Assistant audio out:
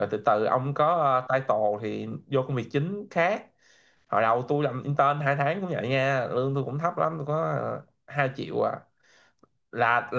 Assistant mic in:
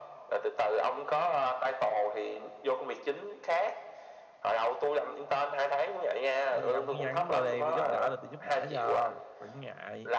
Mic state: both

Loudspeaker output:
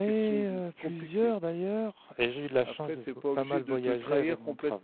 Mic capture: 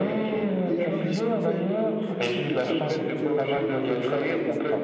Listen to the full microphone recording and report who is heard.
both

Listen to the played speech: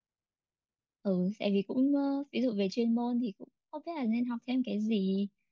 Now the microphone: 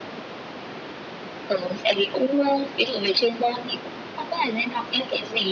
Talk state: echo only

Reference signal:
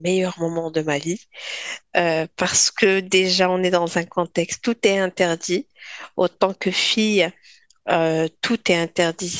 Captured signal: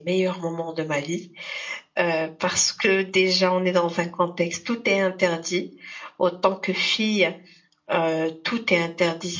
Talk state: echo only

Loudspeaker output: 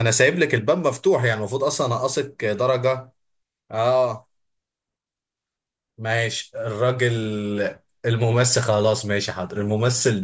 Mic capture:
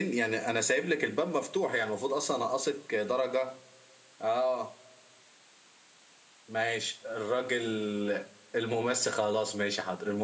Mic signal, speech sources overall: echo only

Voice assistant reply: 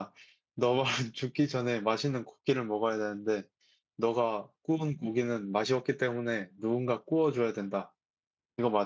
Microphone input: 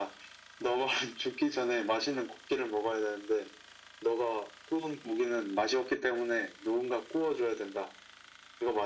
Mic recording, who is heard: echo only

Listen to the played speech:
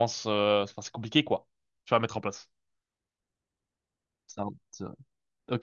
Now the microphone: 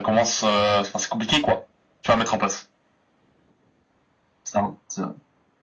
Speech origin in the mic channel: echo only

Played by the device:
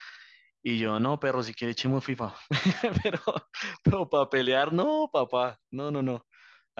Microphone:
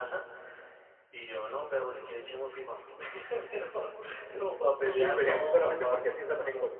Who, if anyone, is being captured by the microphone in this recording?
both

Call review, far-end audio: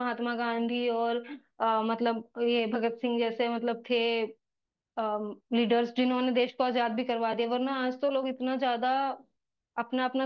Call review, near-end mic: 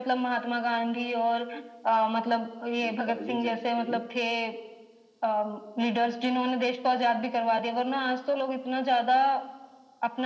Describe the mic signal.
both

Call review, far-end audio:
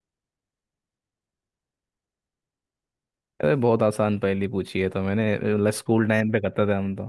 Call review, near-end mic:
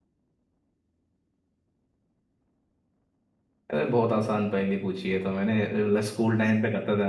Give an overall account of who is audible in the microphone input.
echo only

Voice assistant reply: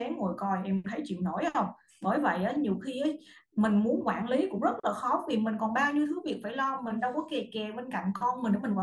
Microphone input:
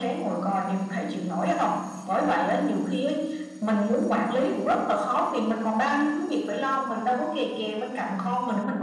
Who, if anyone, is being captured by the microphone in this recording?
echo only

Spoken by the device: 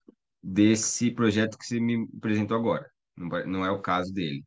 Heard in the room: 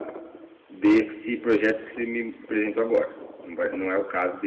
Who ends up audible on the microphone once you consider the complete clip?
echo only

